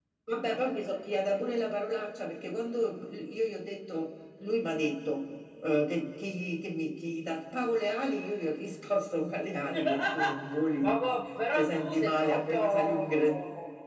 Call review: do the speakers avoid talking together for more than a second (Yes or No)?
No